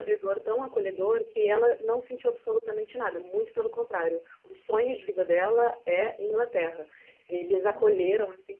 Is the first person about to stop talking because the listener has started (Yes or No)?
No